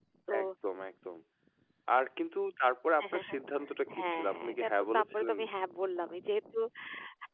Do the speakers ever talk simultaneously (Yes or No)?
Yes